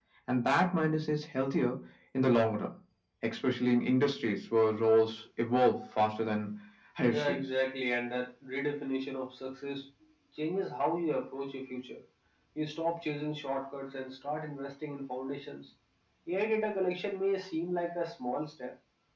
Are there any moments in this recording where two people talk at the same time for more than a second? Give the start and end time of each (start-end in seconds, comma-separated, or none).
none